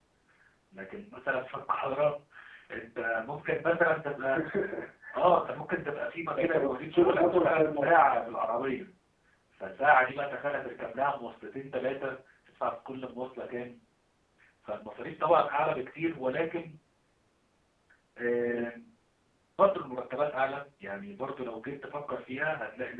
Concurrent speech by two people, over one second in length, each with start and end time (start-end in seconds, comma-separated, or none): 6.3-8.1